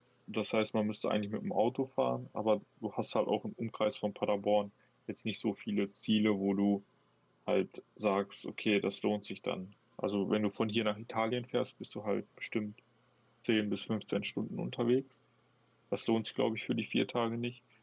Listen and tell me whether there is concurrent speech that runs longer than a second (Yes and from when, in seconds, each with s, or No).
No